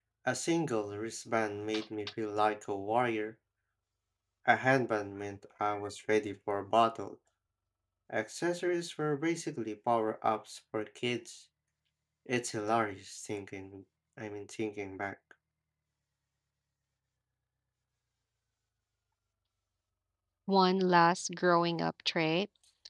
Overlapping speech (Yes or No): No